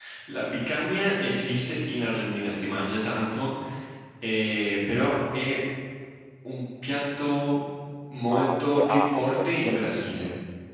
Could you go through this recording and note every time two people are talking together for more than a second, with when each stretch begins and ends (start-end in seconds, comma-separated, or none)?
8.3-10.2